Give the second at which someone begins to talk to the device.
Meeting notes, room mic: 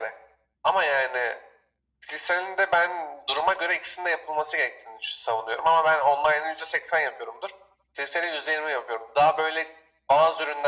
none

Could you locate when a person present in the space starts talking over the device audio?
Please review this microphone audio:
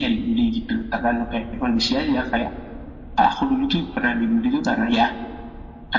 none

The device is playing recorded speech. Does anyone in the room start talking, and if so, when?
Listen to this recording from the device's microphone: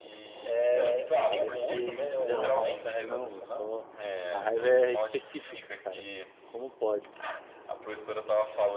1.2 s

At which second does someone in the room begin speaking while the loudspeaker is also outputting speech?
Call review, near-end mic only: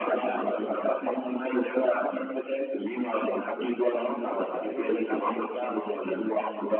3.9 s

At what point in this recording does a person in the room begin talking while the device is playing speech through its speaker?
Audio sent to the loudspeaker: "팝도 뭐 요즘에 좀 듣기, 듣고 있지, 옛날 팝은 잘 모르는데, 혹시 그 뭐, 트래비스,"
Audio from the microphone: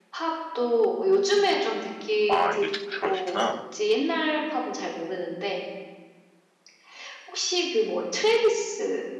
2.3 s

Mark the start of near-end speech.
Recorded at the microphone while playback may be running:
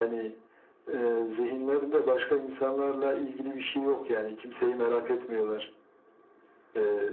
none

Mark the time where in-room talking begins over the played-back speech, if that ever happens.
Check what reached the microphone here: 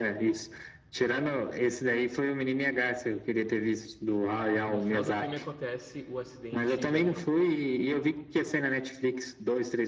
4.5 s

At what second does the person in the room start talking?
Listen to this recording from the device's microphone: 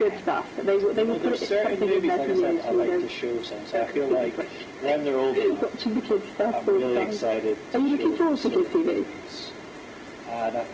none

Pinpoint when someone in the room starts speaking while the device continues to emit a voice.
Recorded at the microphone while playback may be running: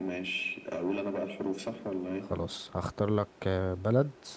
2.2 s

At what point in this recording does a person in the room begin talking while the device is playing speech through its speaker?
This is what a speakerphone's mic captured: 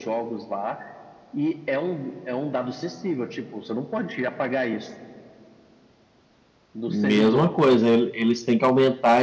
6.9 s

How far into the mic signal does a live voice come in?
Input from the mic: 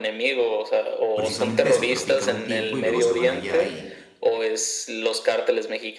1.1 s

